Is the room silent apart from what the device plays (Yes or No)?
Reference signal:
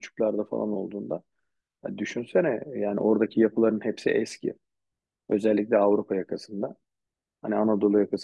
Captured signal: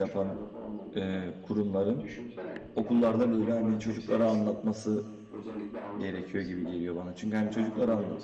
No